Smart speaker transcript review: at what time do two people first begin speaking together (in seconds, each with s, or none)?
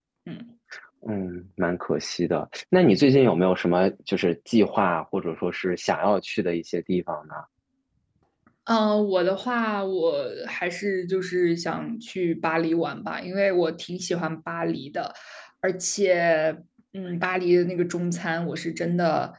none